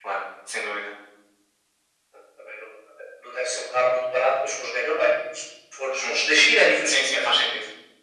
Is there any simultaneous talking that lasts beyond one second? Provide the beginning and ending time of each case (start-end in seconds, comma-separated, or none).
none